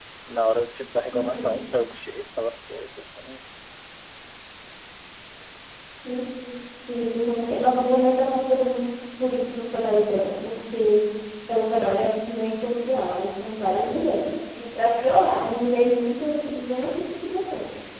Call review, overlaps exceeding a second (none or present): none